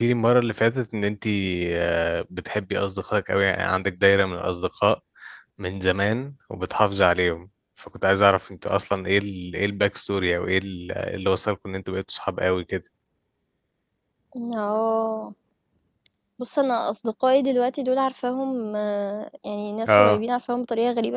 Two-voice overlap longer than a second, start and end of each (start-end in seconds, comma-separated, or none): none